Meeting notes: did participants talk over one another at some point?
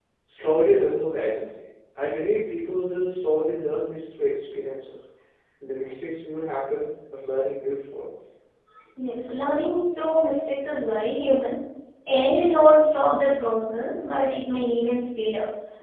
No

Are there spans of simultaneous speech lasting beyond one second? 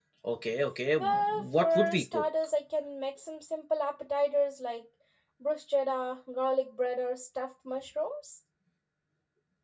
Yes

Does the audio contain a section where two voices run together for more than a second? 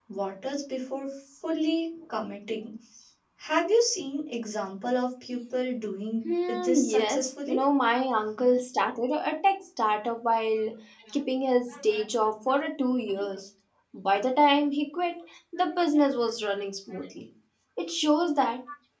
Yes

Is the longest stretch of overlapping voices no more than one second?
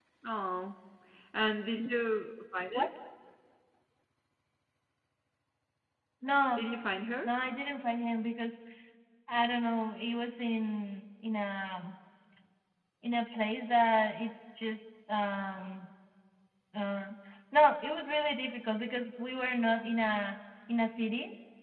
Yes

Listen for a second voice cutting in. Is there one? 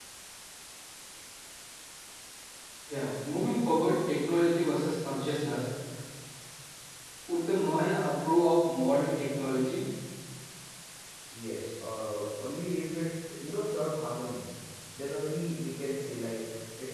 No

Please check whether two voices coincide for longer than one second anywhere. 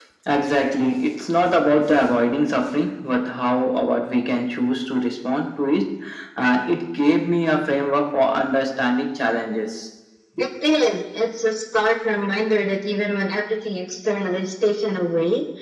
No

